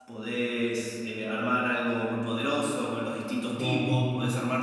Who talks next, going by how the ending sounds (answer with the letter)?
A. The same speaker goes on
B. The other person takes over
A